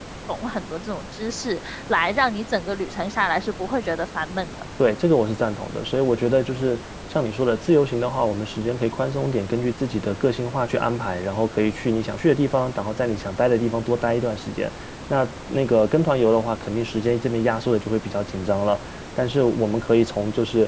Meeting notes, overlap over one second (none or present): none